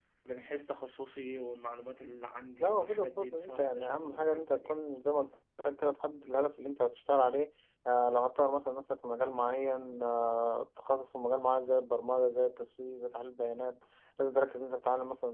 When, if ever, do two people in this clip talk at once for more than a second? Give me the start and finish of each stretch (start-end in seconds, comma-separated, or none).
2.6-4.8